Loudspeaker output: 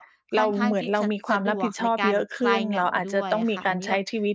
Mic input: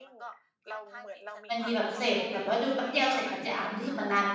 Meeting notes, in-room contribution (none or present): present